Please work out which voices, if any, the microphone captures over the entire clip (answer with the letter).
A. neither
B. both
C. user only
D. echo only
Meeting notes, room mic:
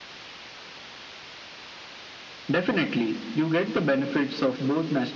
D